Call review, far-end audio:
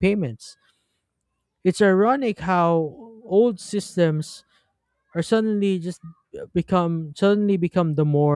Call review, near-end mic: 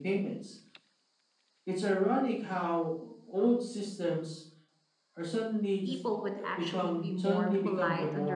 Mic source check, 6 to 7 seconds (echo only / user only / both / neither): both